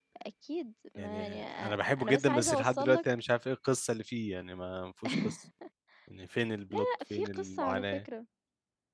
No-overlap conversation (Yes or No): No